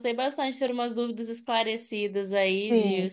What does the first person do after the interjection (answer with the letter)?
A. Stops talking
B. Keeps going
A